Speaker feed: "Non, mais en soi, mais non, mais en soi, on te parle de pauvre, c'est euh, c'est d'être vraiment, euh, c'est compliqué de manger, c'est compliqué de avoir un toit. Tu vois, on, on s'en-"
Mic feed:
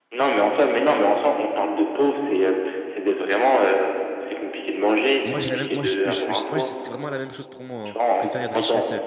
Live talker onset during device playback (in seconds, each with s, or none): 5.3 s